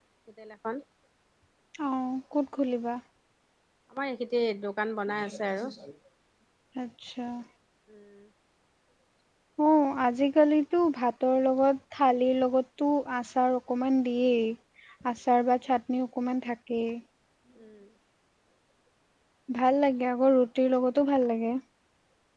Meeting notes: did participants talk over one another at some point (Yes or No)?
No